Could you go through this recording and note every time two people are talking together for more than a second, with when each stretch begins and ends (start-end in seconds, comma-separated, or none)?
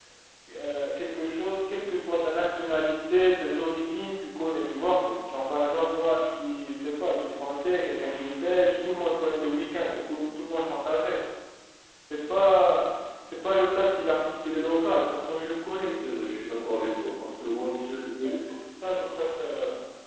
none